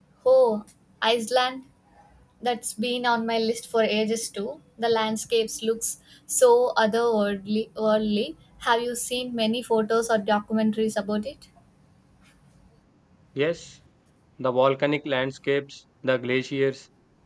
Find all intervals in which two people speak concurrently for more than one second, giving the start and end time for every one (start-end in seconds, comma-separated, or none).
none